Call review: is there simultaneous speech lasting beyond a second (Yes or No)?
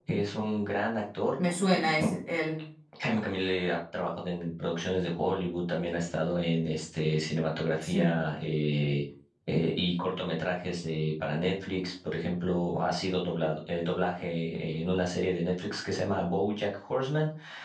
No